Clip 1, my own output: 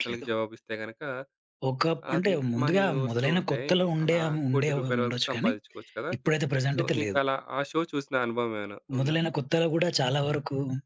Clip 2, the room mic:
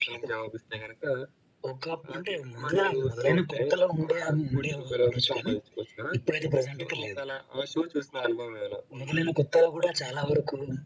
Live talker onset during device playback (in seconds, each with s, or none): none